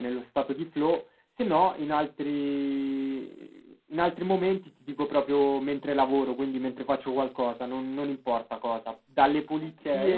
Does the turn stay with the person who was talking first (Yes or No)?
Yes